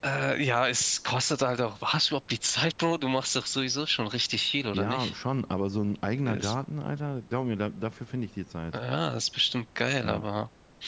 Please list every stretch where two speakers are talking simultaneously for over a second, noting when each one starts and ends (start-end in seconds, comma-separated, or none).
none